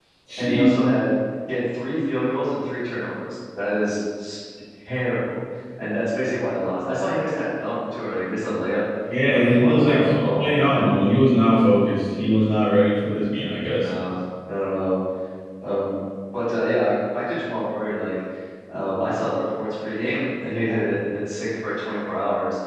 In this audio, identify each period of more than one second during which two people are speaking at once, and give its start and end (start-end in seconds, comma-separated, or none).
9.3-11.0